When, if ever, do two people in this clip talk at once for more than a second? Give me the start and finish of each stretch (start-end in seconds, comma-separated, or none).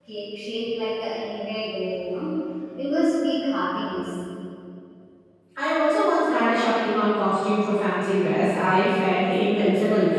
none